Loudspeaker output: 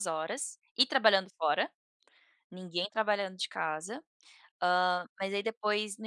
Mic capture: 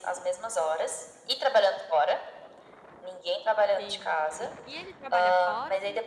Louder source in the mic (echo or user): echo